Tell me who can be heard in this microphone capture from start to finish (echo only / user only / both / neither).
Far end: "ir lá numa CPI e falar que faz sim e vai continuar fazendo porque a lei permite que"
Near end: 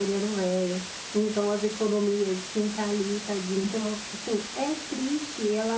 user only